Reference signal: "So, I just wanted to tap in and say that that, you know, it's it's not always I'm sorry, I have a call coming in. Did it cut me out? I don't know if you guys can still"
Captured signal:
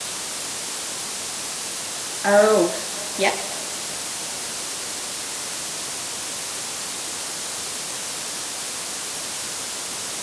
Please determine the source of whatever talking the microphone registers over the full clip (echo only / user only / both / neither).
user only